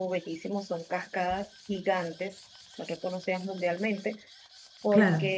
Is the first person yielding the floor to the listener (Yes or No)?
No